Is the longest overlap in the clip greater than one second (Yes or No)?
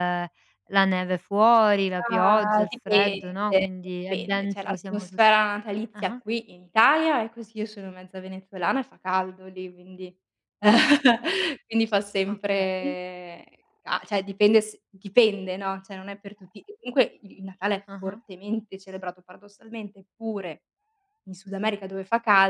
Yes